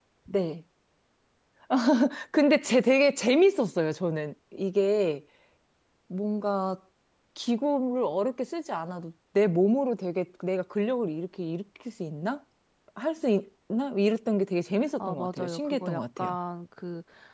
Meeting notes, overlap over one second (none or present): present